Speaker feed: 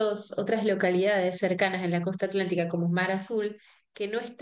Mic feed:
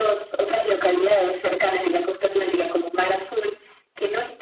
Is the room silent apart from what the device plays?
Yes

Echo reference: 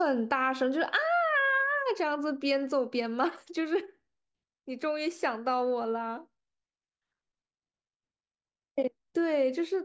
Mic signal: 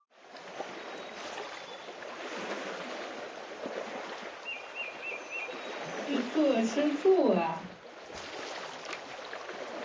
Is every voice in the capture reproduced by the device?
No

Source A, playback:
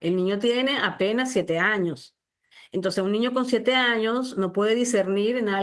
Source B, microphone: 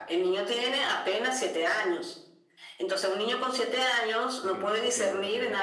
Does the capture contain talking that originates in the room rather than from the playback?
Yes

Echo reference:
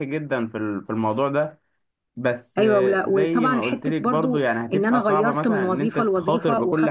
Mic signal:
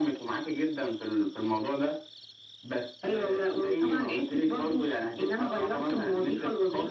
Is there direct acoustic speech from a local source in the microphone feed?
No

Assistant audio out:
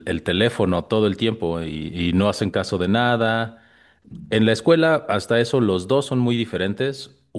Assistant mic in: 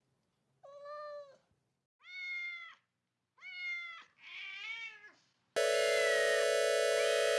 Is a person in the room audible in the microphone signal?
No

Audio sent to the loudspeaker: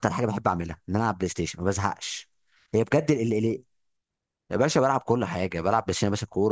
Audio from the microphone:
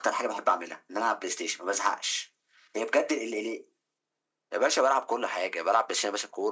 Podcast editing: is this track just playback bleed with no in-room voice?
Yes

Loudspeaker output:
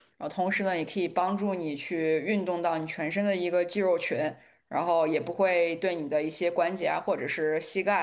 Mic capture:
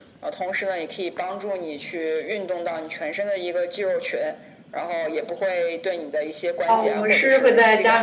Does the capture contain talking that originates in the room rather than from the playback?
Yes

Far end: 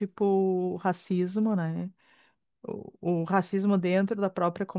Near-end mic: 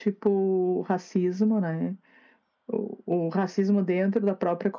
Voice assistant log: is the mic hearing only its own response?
Yes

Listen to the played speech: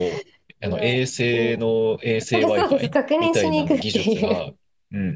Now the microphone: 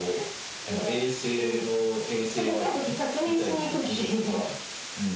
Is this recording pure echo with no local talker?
Yes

